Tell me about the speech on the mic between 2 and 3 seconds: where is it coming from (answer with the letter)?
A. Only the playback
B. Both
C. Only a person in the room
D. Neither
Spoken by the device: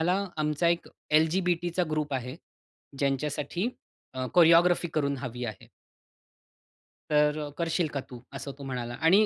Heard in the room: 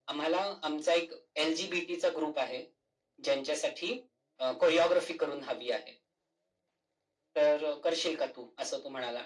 A